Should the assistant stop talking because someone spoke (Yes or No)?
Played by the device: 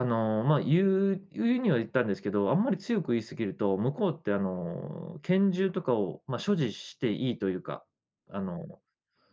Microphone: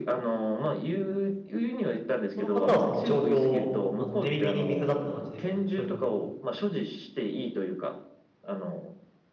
Yes